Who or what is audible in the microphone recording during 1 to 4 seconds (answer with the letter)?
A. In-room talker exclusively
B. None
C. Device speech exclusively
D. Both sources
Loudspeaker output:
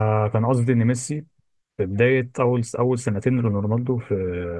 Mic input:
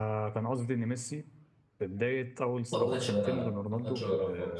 D